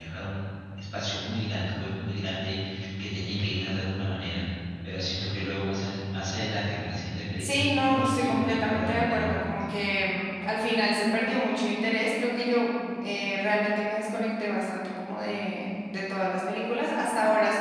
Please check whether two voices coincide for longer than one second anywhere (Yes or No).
Yes